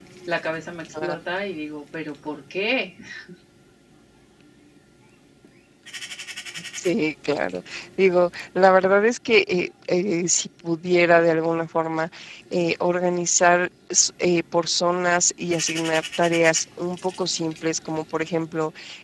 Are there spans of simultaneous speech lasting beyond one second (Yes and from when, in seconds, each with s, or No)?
No